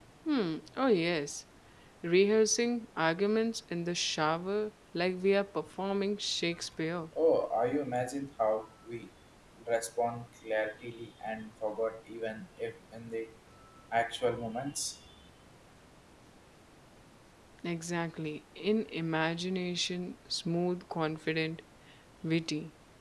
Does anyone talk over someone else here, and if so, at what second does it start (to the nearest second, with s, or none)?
none